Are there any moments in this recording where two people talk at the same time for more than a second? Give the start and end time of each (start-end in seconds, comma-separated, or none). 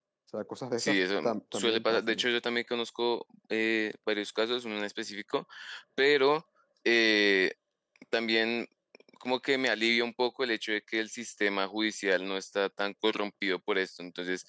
0.8-2.3